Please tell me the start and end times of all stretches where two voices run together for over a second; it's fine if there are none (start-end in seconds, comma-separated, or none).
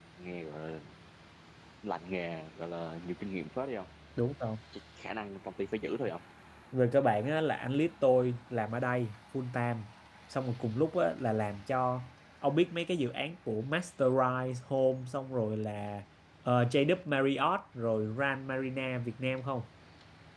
none